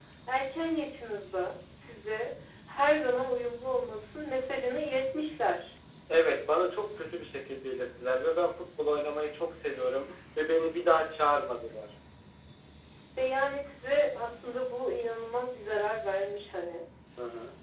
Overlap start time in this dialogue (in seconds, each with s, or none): none